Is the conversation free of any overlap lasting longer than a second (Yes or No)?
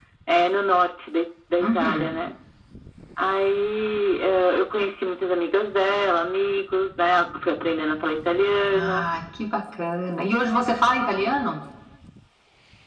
Yes